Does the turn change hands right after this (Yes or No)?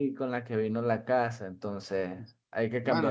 Yes